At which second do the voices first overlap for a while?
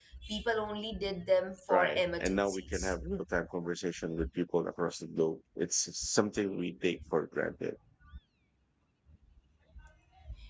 1.7 s

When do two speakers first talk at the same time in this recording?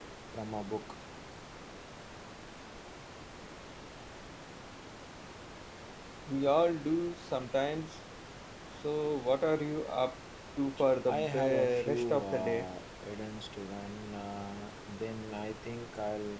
11.1 s

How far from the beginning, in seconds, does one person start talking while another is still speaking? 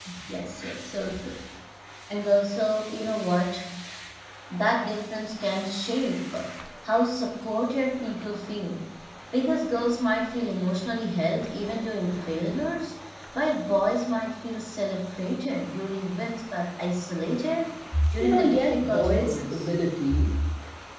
18.2 s

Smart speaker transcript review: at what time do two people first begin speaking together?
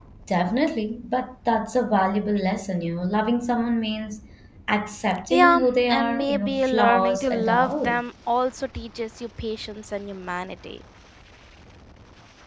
5.3 s

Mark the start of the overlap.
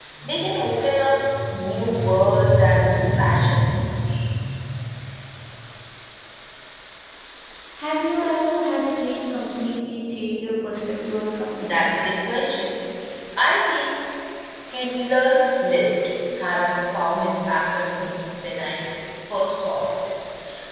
none

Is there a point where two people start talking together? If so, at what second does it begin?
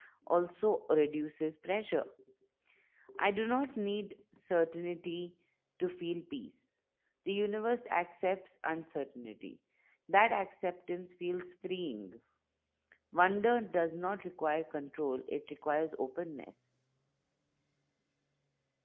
none

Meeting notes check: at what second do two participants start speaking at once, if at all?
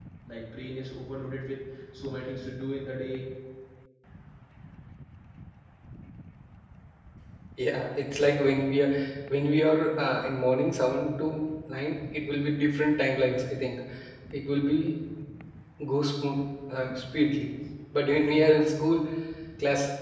none

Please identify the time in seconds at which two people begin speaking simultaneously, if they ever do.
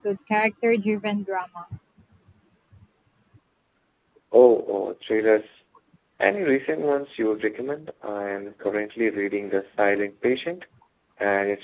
none

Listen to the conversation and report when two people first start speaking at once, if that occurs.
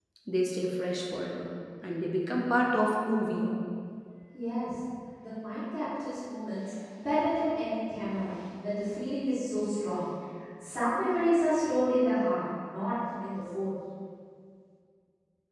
none

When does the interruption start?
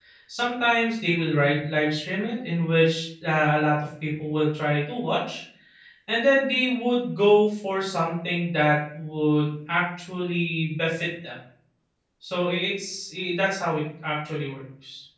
none

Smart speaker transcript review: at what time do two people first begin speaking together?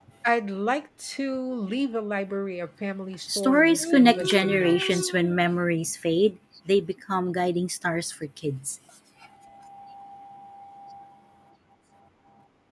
3.3 s

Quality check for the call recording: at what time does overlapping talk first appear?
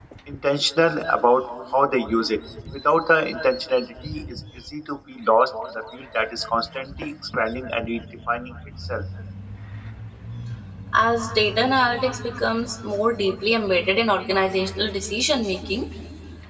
none

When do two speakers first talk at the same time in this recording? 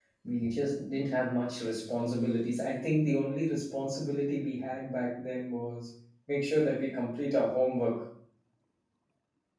none

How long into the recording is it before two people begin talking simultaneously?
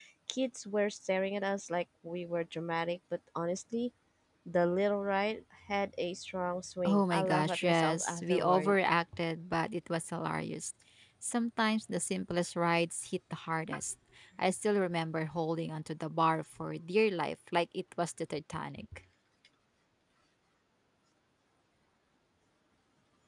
6.8 s

